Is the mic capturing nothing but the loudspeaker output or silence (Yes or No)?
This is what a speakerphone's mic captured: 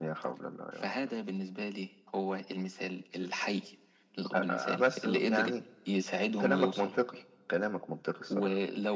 Yes